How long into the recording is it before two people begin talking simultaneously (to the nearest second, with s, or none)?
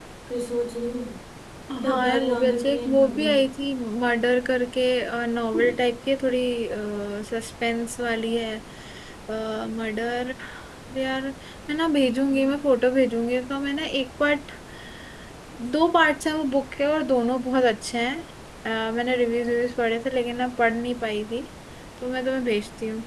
2 s